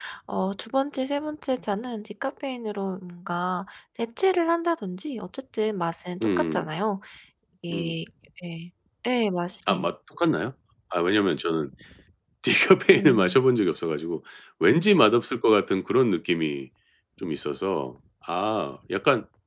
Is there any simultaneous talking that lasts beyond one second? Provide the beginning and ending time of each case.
none

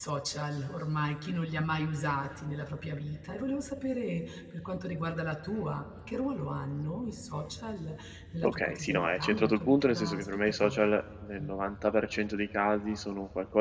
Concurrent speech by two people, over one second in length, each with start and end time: 8.4-10.9

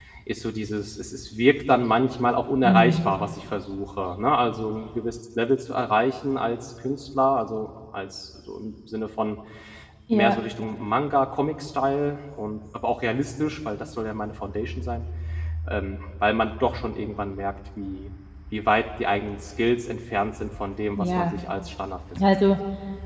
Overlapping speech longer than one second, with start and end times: none

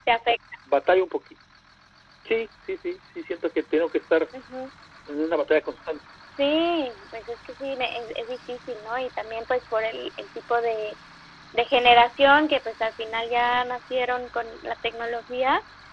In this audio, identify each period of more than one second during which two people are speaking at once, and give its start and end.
none

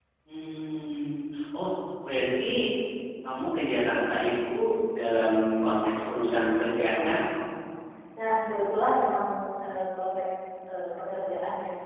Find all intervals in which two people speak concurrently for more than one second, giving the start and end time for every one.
none

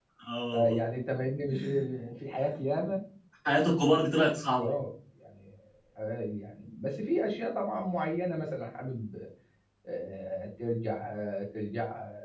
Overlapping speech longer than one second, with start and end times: none

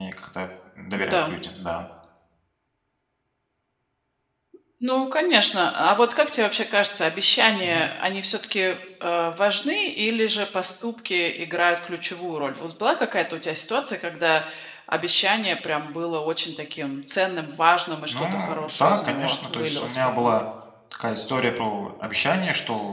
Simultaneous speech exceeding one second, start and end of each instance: 18.1-20.3

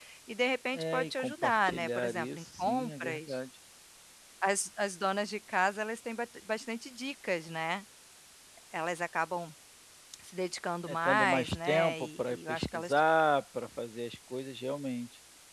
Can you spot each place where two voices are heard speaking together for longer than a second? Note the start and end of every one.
0.7-3.4, 10.9-12.9

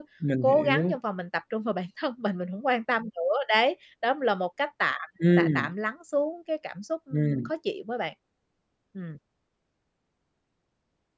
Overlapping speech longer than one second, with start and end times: none

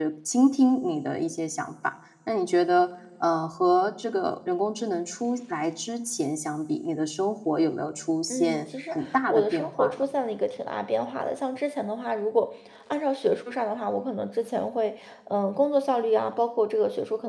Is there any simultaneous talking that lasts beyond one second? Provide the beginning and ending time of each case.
8.3-10.0

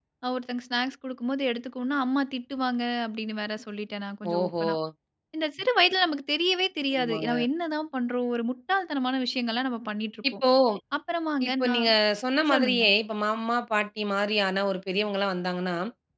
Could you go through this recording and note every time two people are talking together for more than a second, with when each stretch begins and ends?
none

